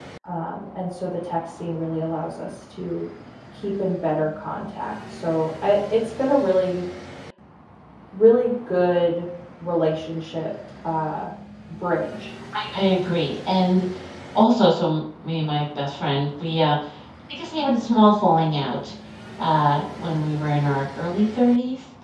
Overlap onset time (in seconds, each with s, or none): none